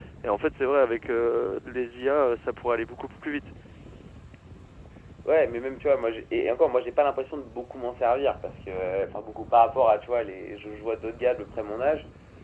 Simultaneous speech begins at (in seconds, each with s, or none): none